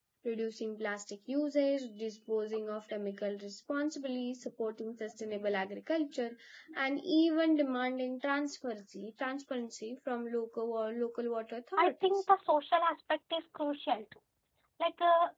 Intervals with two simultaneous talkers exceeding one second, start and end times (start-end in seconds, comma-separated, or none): none